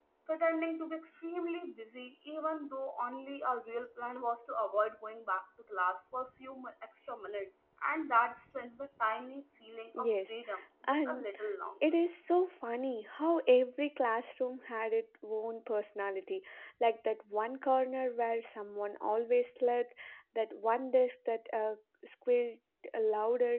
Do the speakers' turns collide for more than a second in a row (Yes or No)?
No